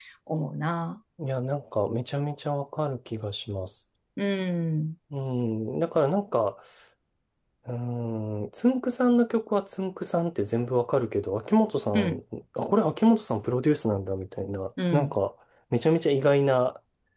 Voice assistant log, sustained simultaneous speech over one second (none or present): none